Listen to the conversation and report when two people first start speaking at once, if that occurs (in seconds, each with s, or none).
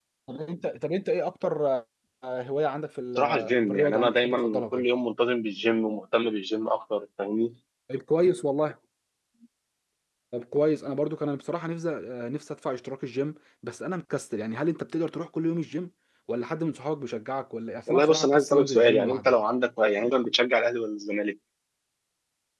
3.2 s